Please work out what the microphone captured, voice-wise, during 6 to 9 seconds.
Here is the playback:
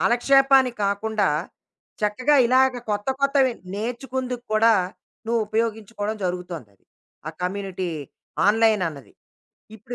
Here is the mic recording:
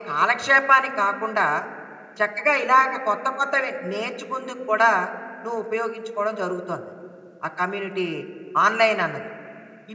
echo only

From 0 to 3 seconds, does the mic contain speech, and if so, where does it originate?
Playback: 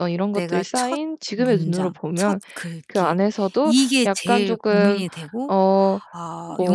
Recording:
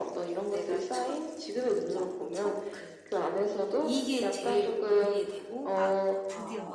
echo only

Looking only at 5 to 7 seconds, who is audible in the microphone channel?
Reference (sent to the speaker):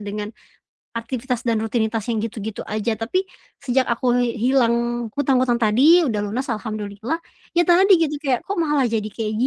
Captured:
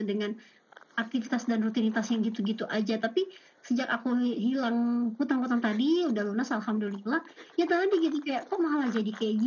echo only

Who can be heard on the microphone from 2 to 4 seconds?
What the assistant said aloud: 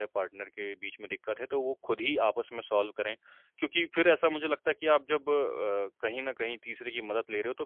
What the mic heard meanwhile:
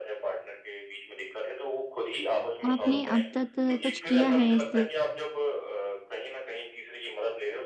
both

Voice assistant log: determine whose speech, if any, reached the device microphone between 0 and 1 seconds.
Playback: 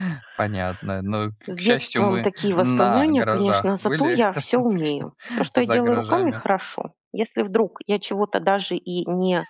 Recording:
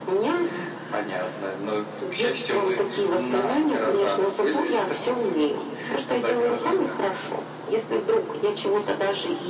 echo only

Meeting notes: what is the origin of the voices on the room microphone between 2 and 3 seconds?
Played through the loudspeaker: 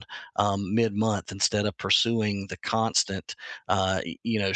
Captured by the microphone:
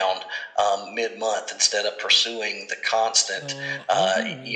echo only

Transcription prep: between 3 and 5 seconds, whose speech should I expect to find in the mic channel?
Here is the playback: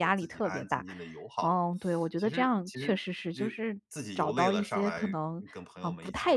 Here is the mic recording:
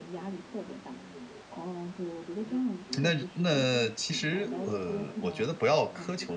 both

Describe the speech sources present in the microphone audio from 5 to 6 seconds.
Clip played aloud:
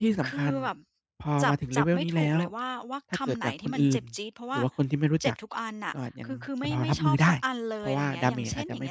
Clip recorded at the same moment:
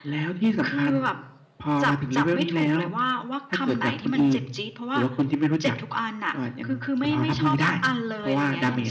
echo only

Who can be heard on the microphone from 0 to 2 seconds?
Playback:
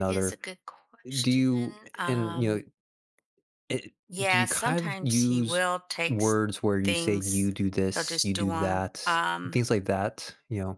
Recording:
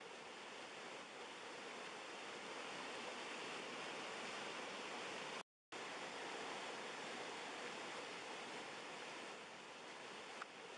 neither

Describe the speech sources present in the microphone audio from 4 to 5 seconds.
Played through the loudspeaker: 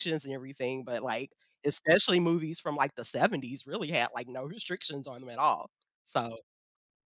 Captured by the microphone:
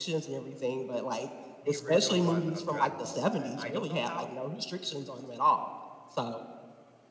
both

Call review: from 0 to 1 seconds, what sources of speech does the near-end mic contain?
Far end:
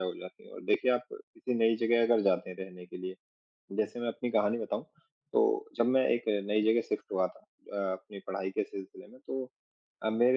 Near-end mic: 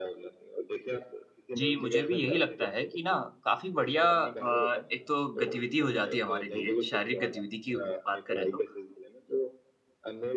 echo only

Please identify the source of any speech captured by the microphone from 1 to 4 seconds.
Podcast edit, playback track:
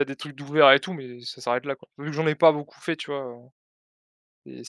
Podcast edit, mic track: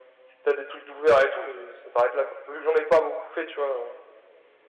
echo only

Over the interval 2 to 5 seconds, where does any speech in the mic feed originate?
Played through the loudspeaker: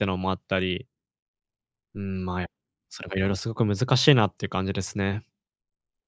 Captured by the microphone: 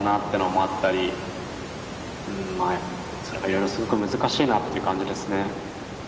echo only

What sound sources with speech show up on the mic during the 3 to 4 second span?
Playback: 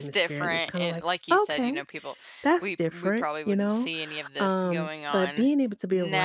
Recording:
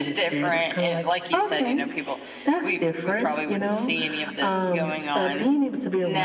echo only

